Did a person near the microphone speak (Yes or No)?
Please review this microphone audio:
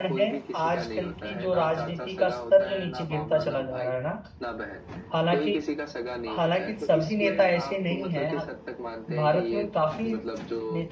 Yes